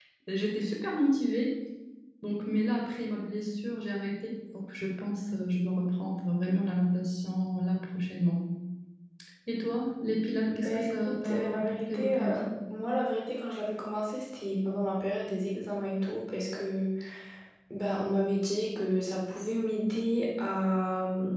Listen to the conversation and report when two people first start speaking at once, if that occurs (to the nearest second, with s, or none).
10 s